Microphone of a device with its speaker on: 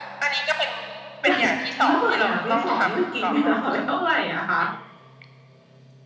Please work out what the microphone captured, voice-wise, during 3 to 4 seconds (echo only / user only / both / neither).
both